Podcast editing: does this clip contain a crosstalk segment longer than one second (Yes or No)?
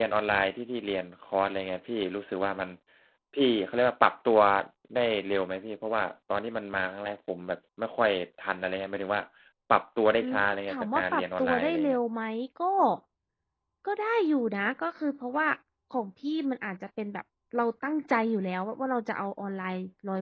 Yes